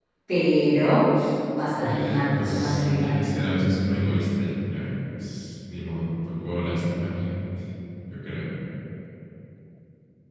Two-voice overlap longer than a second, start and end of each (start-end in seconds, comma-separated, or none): 1.8-3.4